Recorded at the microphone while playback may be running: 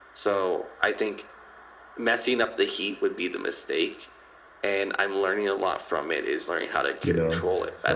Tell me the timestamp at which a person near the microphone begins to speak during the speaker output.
7 s

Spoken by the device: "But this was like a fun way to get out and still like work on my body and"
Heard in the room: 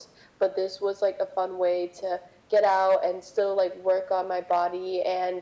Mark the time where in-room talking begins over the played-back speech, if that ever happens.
none

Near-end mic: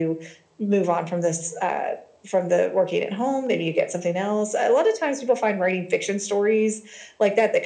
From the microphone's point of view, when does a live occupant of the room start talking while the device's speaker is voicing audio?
none

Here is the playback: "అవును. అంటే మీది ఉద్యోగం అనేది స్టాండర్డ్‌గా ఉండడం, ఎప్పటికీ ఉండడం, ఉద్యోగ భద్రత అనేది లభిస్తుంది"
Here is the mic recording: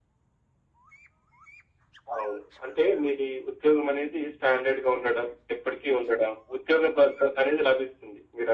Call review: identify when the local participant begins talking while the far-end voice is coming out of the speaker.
none

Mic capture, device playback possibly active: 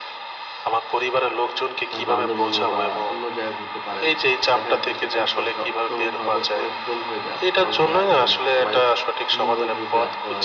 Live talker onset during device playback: 2 s

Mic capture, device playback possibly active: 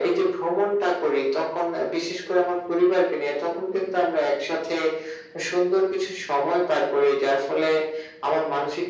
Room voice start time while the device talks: none

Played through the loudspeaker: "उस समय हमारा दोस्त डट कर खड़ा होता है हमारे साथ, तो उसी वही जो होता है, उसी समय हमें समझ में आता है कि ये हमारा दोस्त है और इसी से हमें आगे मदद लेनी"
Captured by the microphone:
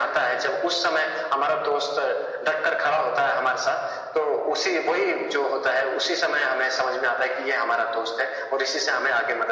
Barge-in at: none

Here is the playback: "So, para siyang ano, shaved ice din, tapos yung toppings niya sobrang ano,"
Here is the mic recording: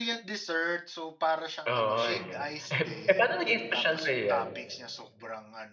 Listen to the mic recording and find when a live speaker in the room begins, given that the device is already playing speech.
2 s

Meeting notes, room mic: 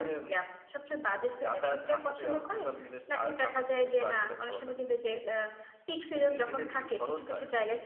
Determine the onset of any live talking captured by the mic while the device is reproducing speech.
none

